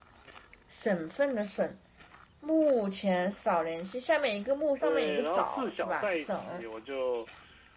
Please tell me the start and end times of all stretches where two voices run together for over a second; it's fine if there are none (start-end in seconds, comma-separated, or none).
4.8-6.6